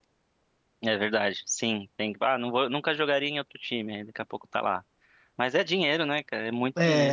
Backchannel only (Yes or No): No